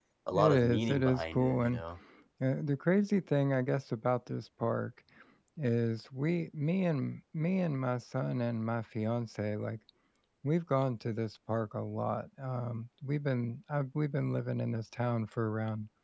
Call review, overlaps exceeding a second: present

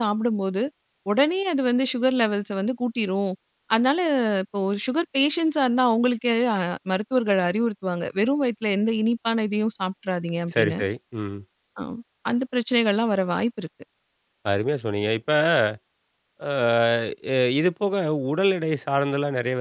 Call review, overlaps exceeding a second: none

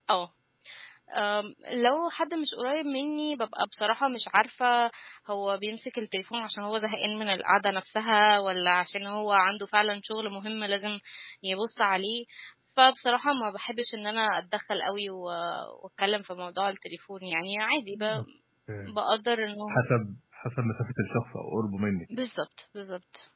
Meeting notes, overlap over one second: none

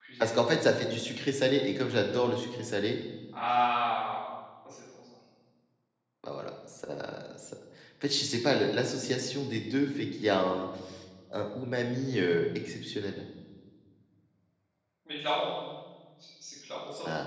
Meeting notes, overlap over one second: none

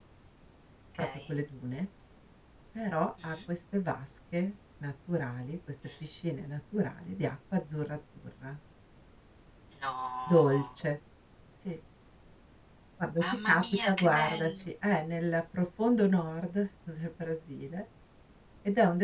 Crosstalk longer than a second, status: present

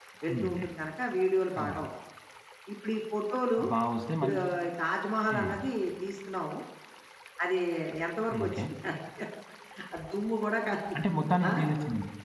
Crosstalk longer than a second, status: none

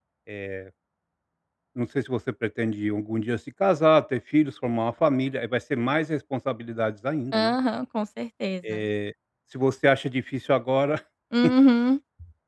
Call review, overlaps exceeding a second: none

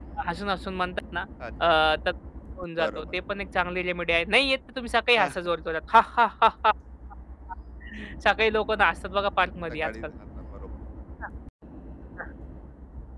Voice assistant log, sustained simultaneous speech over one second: none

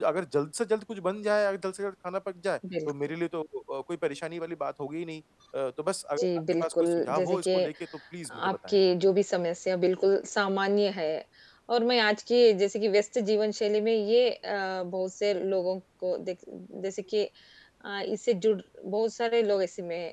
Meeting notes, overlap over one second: present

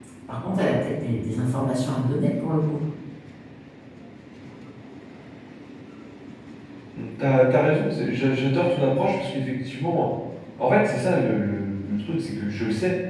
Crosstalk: none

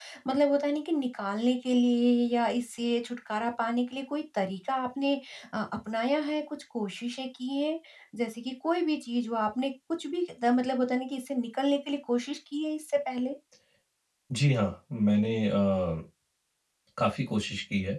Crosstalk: none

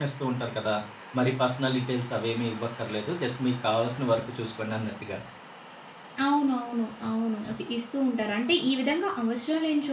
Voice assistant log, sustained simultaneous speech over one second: none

